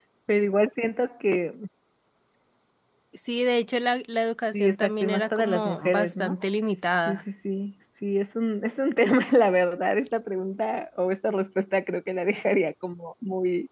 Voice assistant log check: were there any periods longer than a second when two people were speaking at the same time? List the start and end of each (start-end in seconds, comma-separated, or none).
4.5-6.3